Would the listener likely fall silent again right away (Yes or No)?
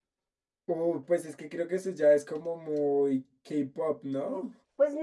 No